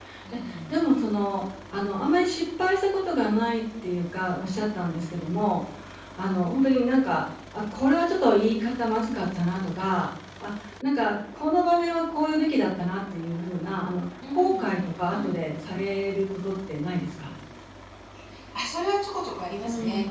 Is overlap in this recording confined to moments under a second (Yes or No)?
Yes